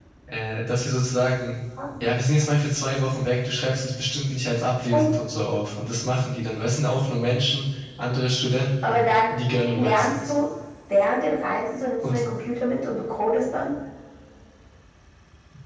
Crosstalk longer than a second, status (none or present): present